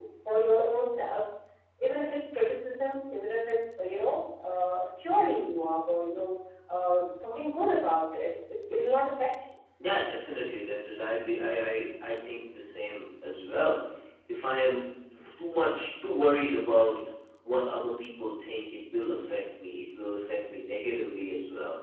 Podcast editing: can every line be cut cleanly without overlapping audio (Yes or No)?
Yes